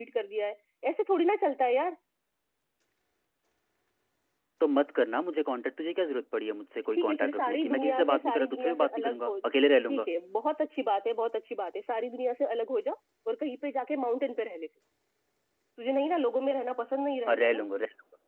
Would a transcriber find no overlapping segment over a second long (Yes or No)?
No